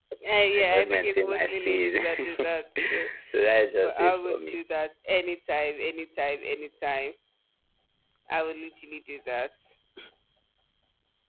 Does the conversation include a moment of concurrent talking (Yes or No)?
Yes